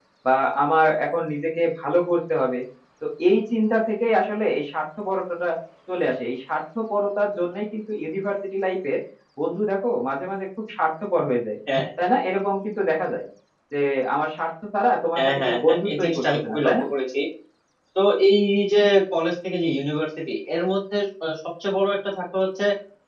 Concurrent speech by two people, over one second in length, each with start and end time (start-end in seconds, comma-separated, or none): 15.2-16.8